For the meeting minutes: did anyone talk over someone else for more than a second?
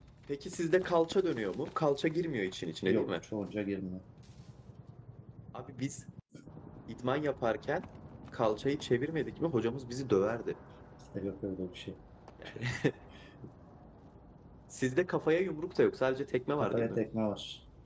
No

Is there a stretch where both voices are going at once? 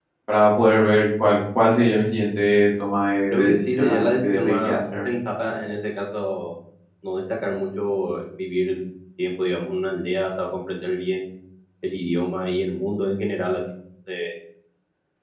Yes, from 3.3 s

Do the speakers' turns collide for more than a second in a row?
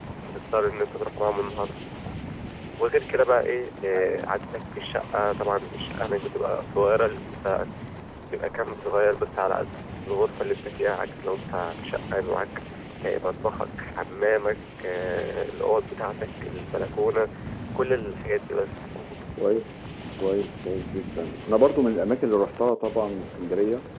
No

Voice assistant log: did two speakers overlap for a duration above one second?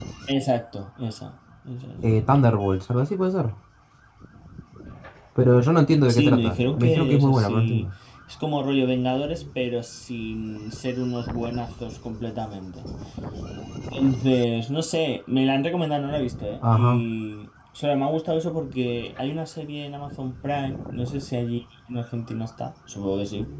Yes, from 6.1 s

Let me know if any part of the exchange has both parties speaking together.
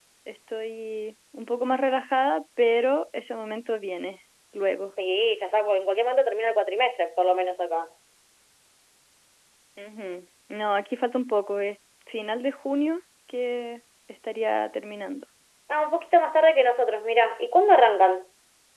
No

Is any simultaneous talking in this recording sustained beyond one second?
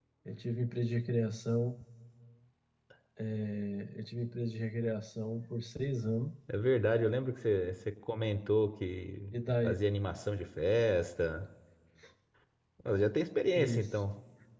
No

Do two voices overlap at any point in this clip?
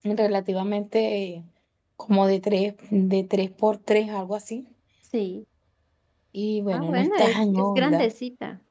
Yes, from 6.7 s

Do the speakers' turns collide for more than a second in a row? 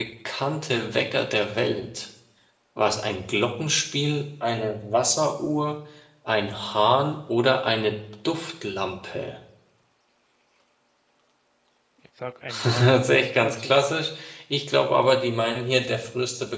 Yes, from 12.6 s

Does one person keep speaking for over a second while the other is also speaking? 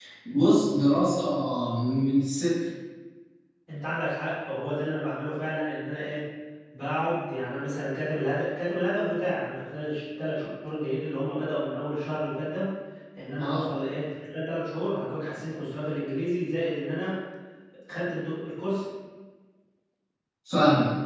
No

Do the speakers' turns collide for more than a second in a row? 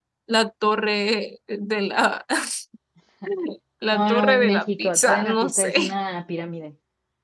Yes, from 3.9 s

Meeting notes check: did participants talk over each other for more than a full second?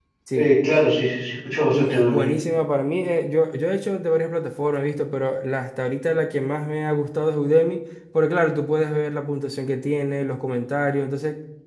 No

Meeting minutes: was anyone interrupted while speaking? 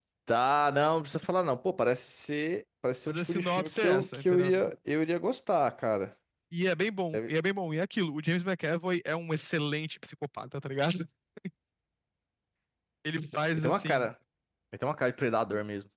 Yes, from 3.1 s

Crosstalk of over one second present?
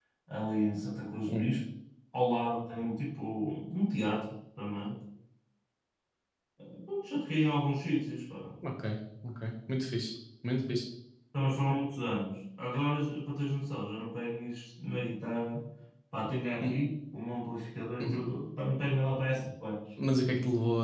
No

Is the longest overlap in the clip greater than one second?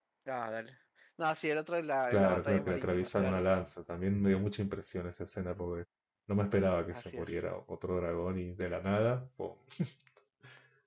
Yes, from 2.1 s

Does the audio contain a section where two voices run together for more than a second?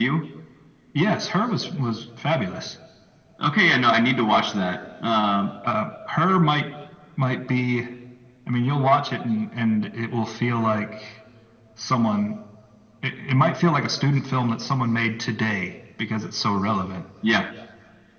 No

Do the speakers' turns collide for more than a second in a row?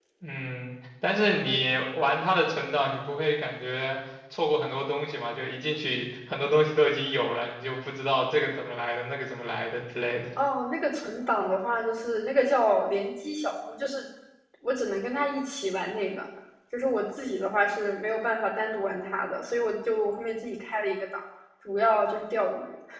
No

